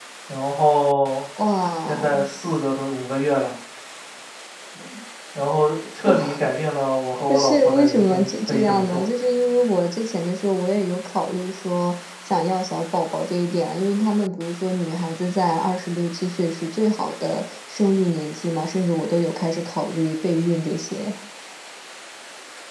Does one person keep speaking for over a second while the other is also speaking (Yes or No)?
Yes